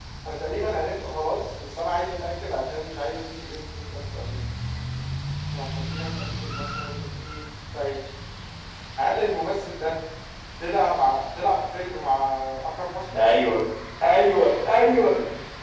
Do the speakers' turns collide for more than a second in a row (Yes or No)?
No